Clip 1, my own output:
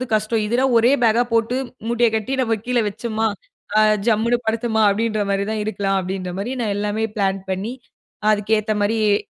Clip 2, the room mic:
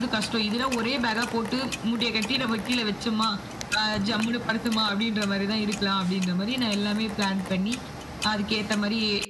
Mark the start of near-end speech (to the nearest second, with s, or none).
none